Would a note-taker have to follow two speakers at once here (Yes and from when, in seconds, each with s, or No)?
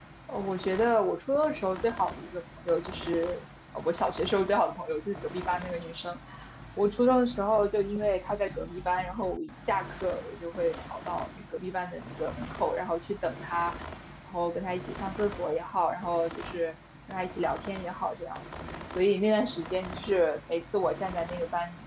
No